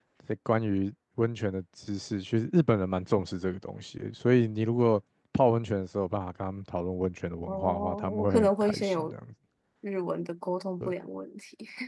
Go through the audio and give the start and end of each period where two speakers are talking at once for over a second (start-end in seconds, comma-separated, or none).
7.5-9.1